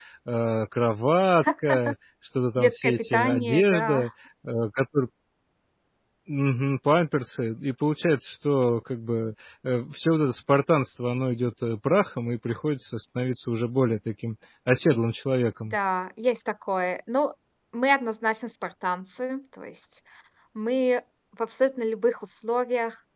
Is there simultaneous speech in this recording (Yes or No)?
Yes